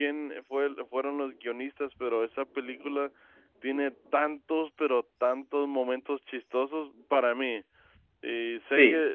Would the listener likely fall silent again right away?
Yes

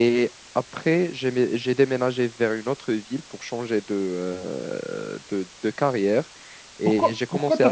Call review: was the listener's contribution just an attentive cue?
No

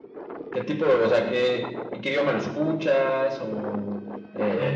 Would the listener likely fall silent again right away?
No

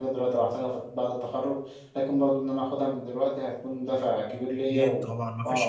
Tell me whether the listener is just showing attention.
No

